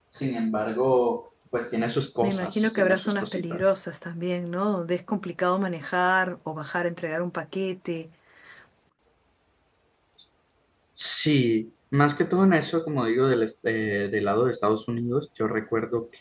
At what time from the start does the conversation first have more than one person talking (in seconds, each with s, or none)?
2.2 s